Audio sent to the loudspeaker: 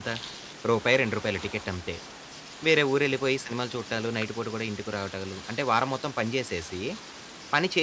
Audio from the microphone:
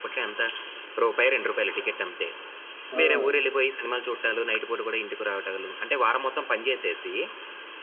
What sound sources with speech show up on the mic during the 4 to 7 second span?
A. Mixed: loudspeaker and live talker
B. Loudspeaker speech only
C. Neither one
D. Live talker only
B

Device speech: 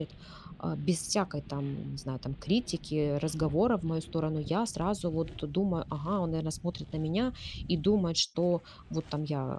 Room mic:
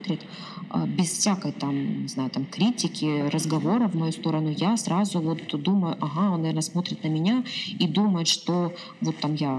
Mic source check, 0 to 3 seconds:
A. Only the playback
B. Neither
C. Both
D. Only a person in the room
A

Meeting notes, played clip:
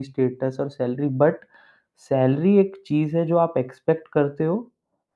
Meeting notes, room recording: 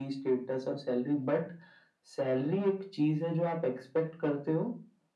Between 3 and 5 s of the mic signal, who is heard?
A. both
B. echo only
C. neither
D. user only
B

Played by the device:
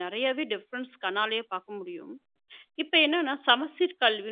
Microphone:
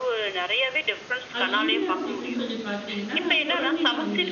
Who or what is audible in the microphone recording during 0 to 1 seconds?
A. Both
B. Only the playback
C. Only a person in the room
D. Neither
B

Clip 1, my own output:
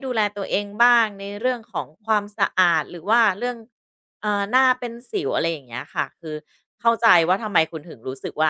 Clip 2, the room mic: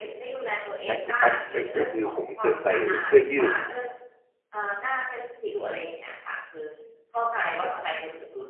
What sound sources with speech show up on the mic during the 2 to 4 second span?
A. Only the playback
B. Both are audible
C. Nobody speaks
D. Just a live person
B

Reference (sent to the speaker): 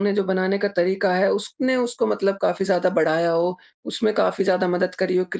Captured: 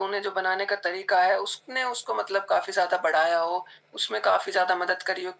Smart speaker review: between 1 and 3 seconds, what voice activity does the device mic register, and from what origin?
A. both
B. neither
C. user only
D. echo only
D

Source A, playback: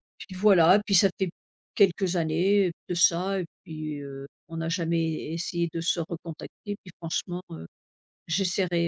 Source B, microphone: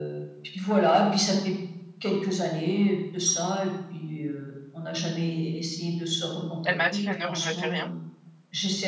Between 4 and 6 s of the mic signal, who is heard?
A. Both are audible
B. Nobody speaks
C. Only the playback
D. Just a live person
C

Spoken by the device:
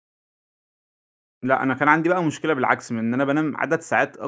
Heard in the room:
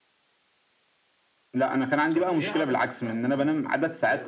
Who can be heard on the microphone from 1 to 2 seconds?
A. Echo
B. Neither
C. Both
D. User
A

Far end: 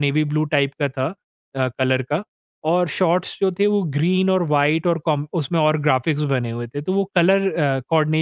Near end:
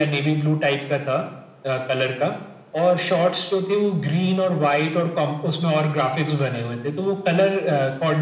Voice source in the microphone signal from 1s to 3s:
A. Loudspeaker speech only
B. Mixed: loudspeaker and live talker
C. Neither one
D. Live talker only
A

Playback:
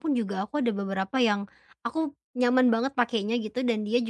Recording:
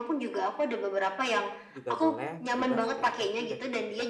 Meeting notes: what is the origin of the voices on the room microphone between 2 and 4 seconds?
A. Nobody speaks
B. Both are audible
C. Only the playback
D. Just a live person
B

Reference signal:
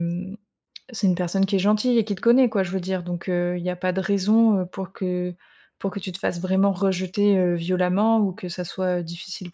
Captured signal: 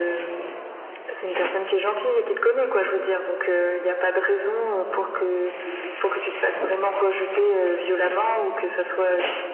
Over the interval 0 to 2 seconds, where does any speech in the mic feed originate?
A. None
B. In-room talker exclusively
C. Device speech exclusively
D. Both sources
C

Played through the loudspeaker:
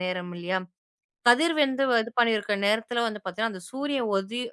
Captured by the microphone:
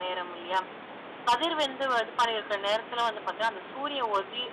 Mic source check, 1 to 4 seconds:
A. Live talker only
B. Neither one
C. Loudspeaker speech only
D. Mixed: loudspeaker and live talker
C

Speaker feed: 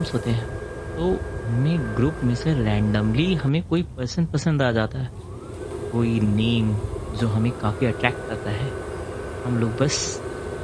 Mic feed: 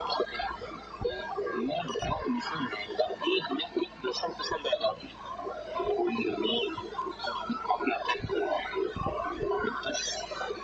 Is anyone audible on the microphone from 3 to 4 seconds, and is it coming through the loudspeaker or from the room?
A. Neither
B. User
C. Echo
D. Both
C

